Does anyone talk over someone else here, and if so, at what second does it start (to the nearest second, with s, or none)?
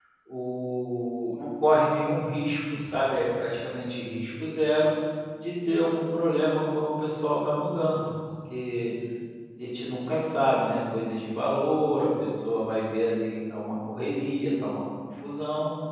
none